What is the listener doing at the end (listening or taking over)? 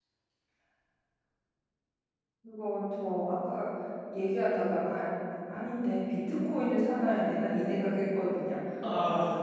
listening